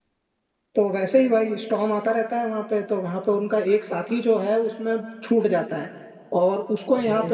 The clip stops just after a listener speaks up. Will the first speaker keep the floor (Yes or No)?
Yes